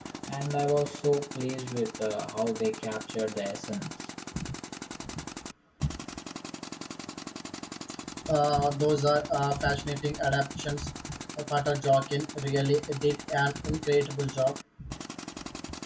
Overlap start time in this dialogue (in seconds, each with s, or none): none